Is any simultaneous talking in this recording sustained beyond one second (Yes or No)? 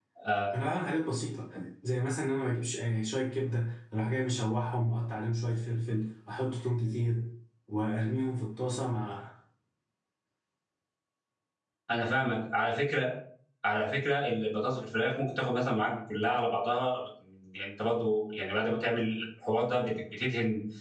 No